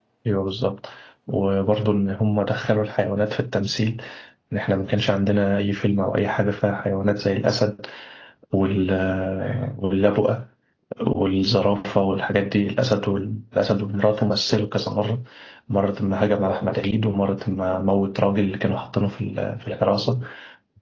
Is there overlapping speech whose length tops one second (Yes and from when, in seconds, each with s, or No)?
No